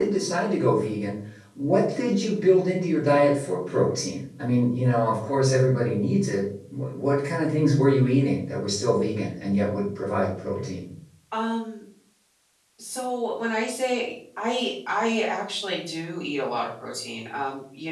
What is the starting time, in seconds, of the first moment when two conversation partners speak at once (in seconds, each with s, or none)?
none